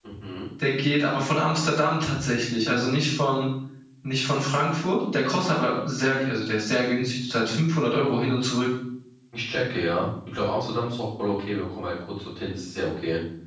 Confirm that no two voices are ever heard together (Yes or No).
Yes